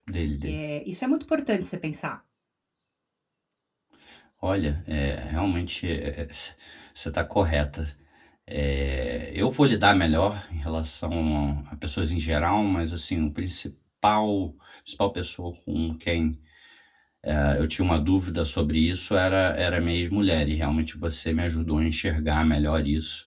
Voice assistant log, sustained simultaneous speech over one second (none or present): none